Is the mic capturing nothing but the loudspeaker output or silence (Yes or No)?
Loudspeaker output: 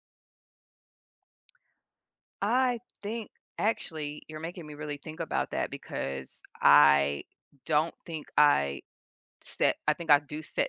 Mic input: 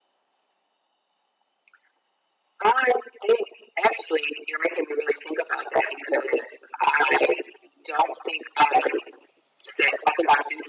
Yes